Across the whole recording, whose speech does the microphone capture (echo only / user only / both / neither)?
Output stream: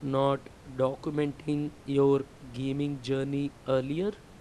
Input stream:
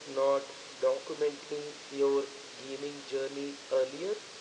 echo only